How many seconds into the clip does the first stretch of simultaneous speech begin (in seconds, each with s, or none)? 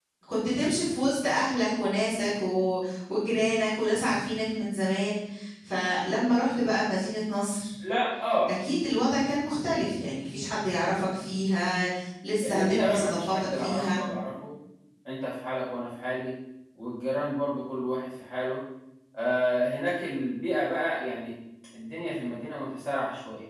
12.4 s